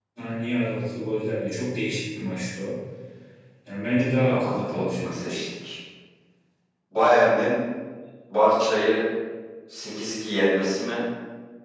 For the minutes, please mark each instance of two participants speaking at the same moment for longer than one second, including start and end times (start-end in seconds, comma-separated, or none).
4.2-5.4